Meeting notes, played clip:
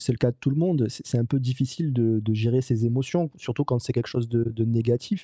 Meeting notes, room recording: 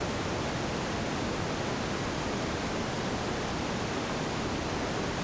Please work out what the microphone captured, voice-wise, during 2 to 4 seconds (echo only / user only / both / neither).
neither